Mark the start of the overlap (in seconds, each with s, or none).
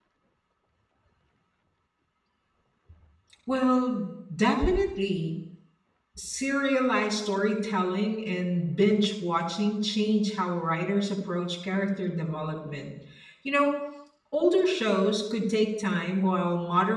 none